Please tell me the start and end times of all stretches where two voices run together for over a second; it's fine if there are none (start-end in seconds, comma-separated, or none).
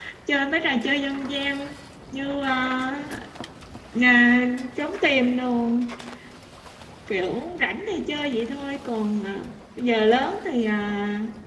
none